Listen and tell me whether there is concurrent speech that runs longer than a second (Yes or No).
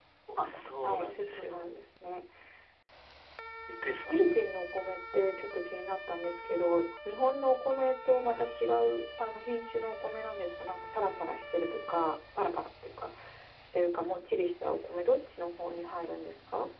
Yes